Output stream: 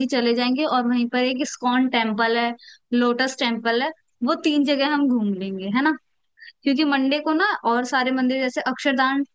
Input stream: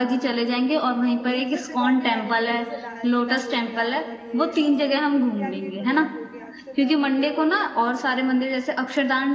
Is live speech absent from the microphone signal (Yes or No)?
No